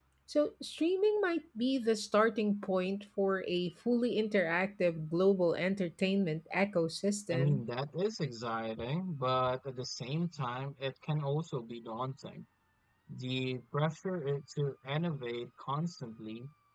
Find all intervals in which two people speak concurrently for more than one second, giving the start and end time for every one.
none

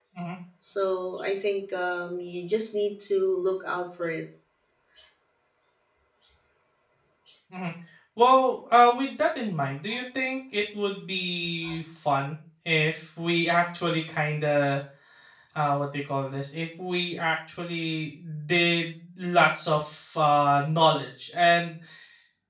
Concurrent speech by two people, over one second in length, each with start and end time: none

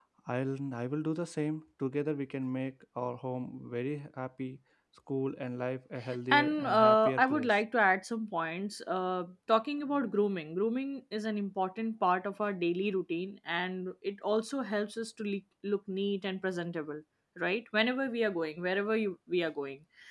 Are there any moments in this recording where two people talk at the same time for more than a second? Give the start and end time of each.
6.3-7.5

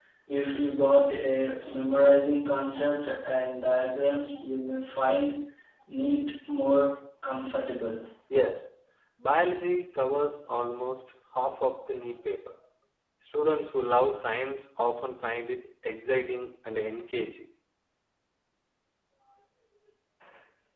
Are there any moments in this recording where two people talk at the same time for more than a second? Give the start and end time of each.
none

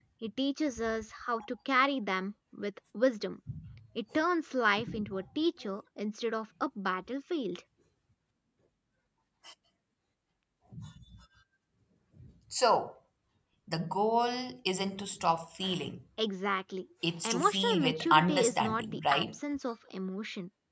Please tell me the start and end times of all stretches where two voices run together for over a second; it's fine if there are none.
17.2-19.2

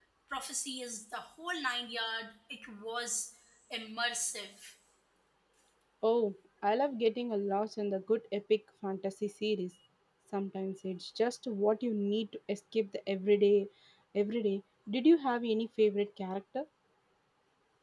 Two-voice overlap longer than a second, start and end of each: none

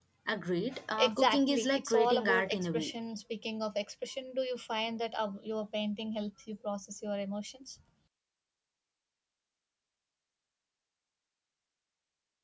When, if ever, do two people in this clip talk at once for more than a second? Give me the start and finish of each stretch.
1.0-2.9

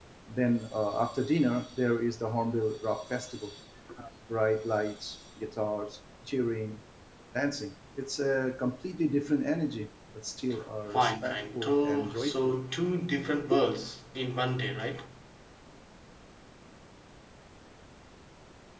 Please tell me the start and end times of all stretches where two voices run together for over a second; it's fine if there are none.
10.9-12.5

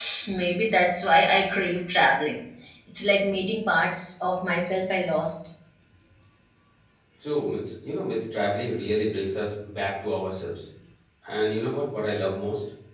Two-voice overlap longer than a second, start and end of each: none

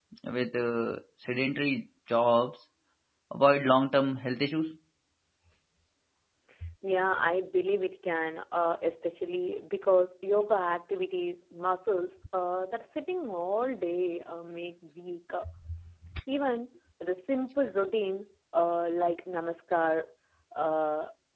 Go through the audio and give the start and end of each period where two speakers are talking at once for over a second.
none

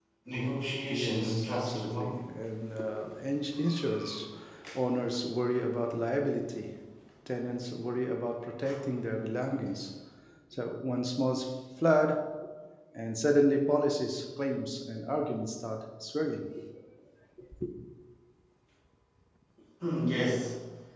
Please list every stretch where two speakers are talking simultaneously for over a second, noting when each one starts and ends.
0.9-2.2

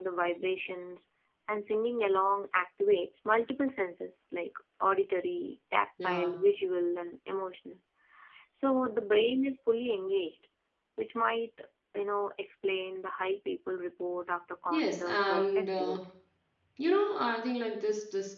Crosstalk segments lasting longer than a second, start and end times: 14.7-16.0

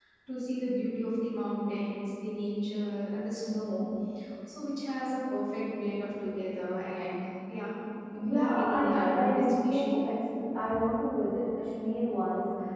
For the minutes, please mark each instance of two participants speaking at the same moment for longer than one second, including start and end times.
8.2-9.9

